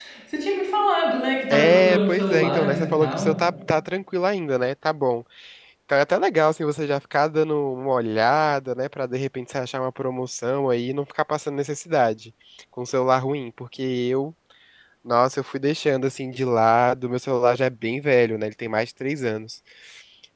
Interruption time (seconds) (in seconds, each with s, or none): 1.5 s